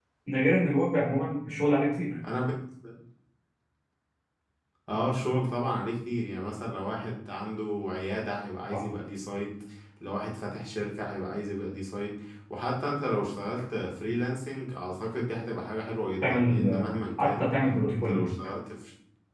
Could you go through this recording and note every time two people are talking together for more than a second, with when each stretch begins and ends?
16.2-17.5

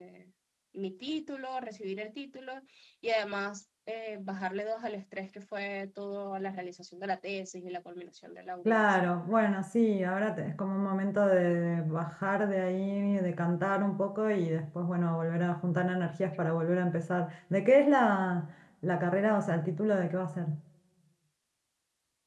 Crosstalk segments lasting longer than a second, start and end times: none

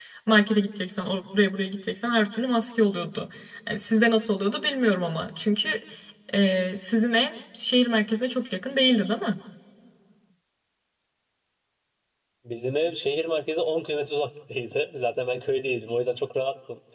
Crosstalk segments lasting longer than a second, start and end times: none

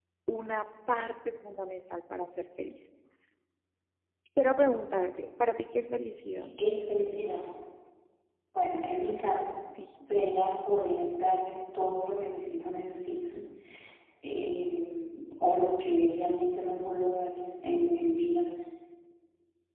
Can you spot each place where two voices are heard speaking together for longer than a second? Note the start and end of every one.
none

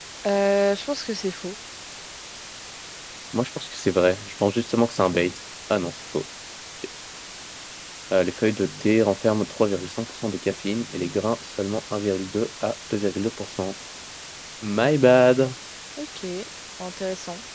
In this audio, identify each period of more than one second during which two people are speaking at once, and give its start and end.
none

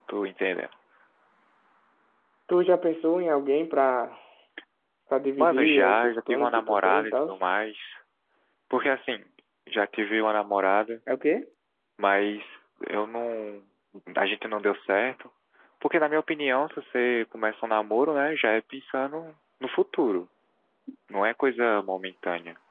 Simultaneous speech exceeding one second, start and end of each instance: 5.4-7.3

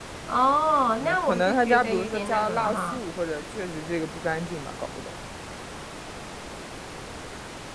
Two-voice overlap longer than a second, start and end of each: 1.0-3.0

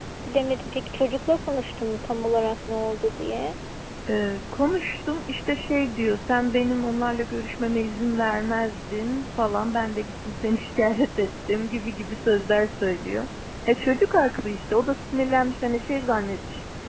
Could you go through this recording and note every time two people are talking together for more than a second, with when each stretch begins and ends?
none

